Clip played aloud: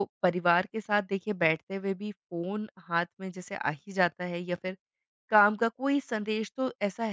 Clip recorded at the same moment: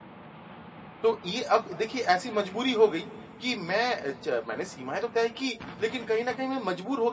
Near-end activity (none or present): present